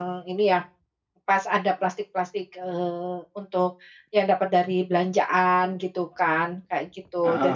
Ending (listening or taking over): listening